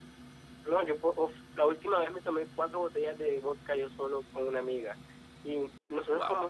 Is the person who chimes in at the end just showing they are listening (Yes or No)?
Yes